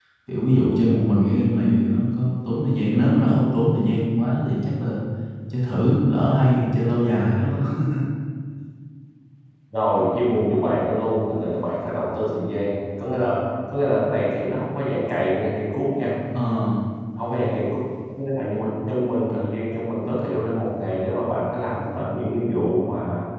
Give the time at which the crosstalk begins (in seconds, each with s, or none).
none